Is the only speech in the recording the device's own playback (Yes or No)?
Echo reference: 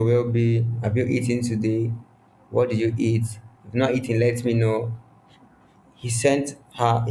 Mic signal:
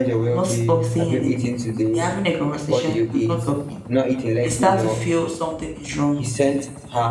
No